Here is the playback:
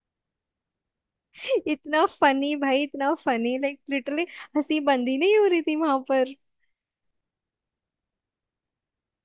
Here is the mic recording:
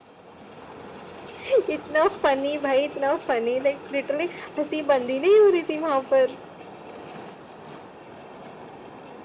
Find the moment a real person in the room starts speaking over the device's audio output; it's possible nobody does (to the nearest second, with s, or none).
none